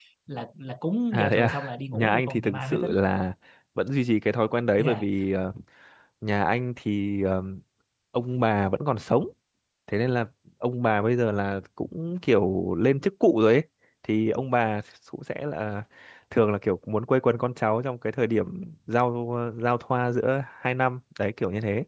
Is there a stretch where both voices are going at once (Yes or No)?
Yes